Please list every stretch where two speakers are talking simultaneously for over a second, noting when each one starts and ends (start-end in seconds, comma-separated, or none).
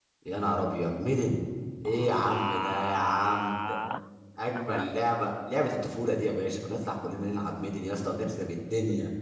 1.9-3.8